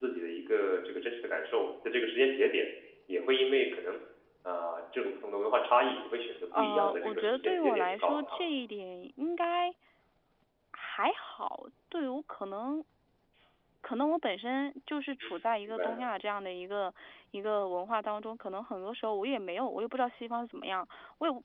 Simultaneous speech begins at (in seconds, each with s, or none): 6.6 s